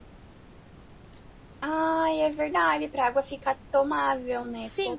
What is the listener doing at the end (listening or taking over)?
taking over